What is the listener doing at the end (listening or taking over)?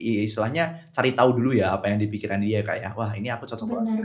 taking over